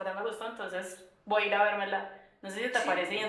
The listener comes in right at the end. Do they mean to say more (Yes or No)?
No